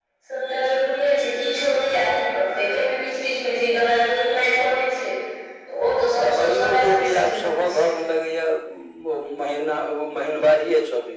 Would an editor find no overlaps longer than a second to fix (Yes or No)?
No